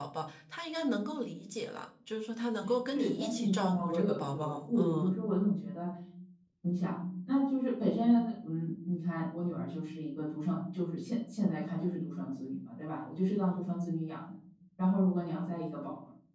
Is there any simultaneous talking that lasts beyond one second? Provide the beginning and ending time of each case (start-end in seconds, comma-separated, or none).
2.9-5.2